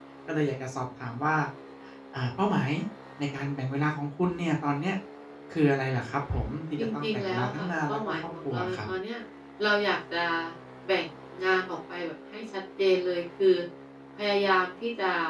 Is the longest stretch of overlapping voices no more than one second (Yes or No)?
No